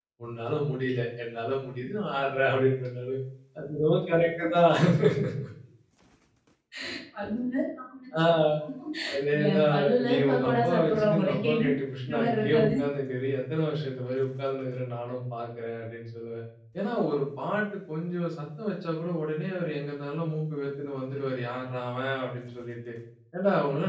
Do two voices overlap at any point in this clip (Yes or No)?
Yes